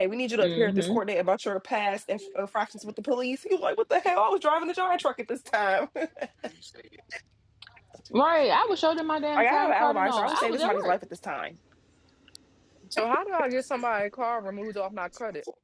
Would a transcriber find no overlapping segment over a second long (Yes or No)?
No